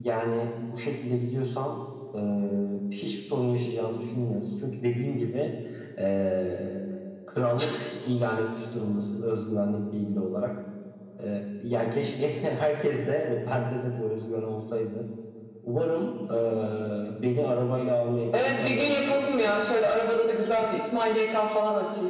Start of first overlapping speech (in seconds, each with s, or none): 18.3 s